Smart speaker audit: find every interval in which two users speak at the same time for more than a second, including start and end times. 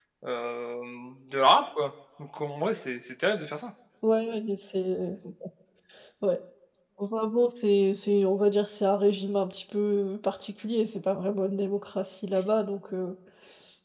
none

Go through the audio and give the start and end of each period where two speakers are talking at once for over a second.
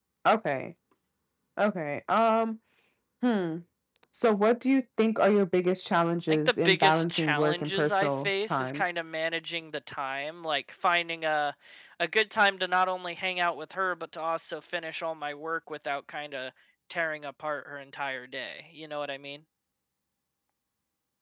6.3-8.8

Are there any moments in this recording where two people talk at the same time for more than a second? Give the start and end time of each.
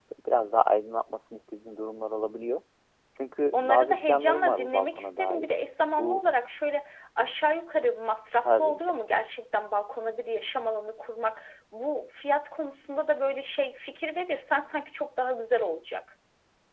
3.5-5.5

